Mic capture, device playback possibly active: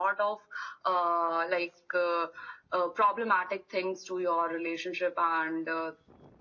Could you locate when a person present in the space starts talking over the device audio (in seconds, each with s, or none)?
none